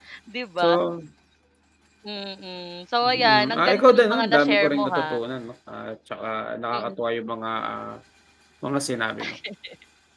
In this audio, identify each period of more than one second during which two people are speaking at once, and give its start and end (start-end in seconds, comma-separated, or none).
3.0-5.2